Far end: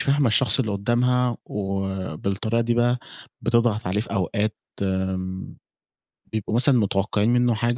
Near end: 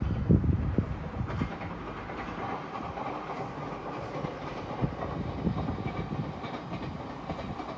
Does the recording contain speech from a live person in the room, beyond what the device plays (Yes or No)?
No